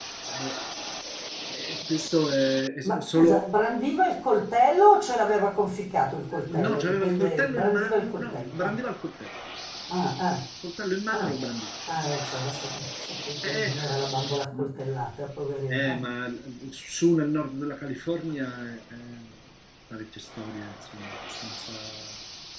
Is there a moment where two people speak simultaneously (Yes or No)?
Yes